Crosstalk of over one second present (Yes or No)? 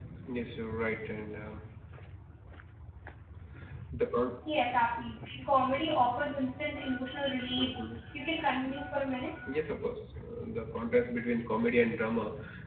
No